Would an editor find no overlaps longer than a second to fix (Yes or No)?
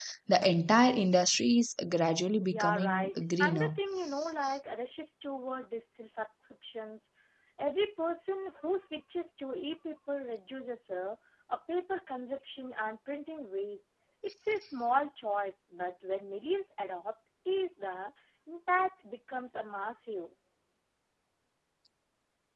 No